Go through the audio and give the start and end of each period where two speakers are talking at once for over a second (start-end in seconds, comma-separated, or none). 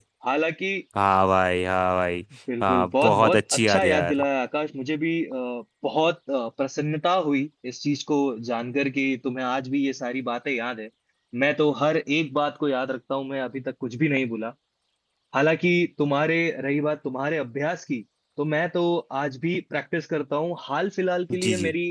2.6-4.2